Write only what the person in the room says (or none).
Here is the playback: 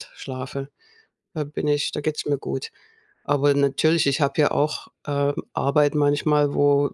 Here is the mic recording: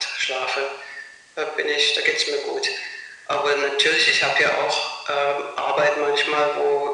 none